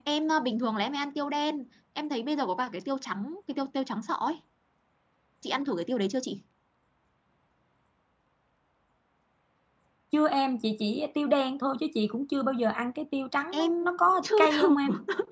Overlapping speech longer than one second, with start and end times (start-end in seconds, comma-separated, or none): 13.5-14.8